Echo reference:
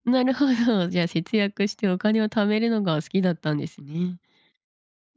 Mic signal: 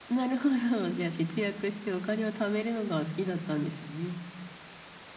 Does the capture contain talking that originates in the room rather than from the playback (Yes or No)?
No